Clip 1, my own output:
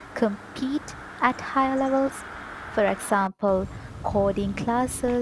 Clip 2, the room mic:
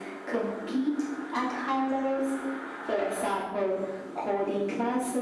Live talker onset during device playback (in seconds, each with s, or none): none